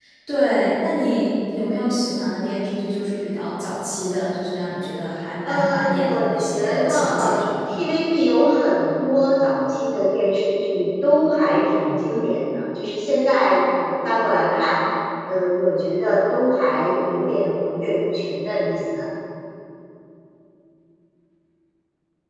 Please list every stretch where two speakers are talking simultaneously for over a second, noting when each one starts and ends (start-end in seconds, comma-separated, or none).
5.5-7.8